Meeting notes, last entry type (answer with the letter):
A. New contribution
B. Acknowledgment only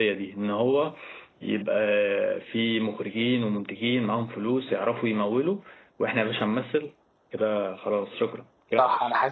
A